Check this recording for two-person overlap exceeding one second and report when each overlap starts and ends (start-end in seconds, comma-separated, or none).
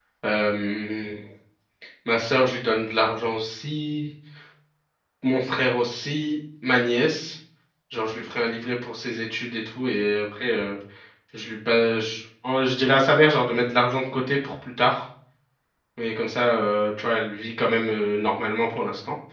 none